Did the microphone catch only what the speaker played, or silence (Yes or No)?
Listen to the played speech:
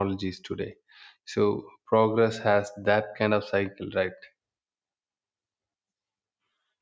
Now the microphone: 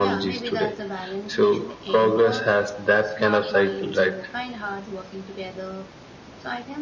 No